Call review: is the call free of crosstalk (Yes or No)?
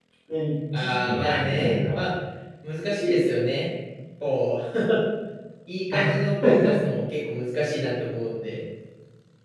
No